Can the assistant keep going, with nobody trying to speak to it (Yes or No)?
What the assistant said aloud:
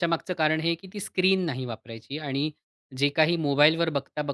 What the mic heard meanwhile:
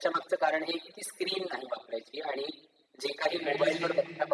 No